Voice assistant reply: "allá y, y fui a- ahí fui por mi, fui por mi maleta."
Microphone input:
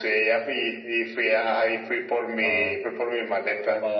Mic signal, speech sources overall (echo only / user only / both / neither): both